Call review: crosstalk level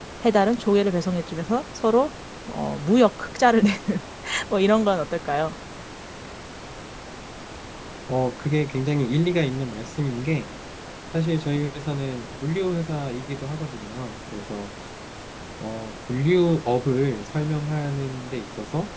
none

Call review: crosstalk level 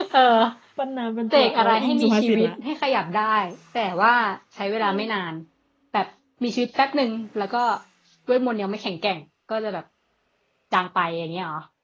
present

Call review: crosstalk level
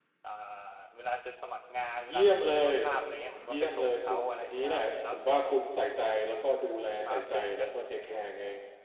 present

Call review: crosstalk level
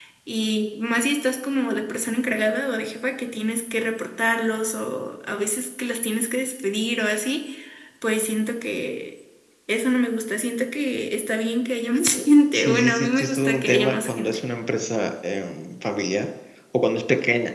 present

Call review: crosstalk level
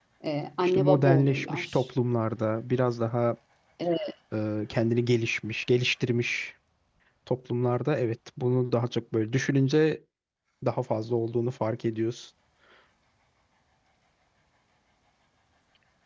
present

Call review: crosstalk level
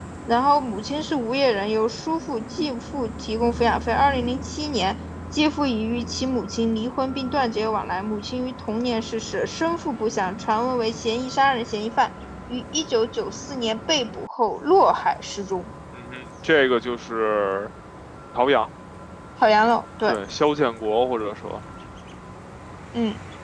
none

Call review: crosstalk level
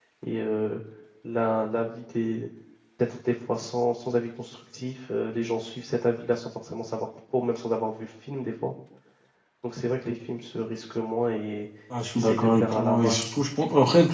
present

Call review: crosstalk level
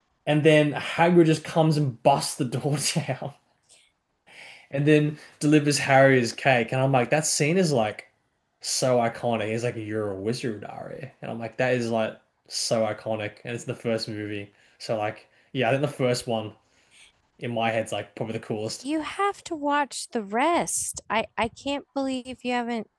none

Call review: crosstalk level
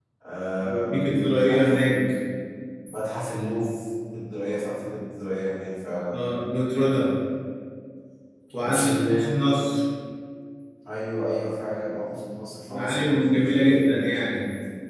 present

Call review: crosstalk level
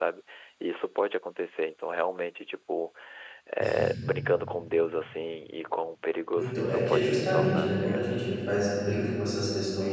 present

